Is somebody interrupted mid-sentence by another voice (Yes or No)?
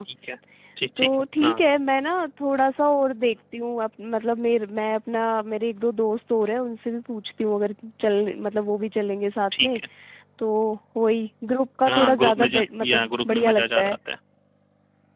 Yes